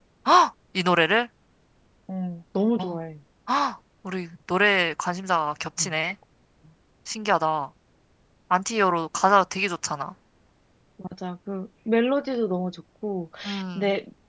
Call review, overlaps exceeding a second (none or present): none